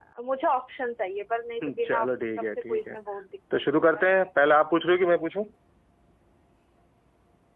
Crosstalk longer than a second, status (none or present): present